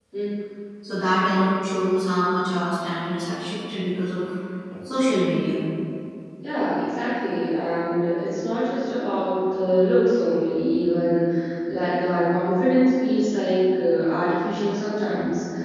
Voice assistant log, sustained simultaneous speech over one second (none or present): none